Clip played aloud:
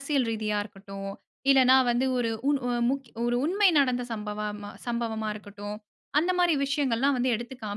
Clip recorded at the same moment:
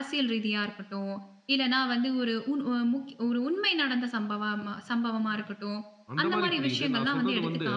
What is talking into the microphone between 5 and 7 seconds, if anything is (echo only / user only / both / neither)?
both